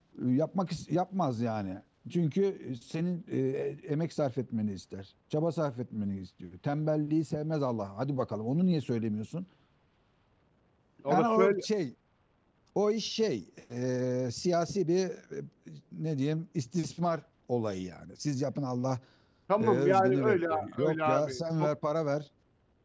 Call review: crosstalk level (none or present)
present